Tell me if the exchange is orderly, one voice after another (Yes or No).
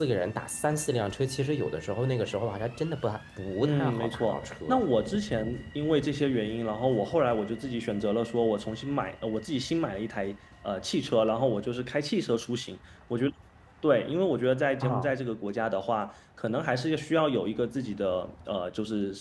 No